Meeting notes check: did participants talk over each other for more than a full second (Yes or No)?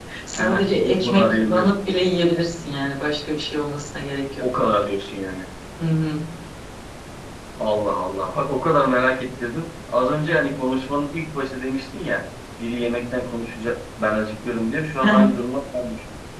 Yes